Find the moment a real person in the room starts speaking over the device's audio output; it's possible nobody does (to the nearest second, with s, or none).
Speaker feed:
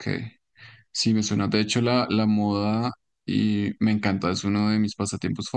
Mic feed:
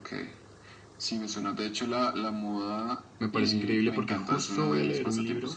3 s